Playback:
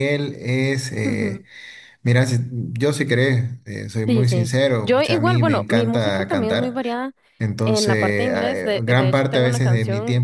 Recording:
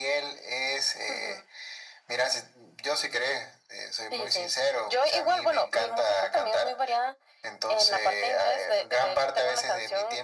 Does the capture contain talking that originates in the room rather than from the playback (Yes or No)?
No